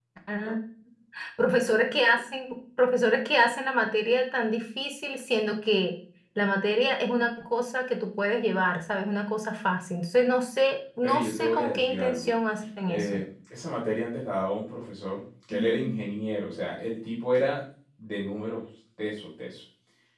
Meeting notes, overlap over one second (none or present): present